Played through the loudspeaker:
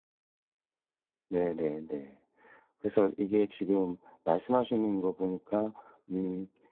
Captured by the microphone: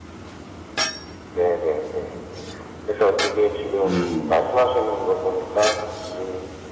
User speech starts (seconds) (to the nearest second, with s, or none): 4 s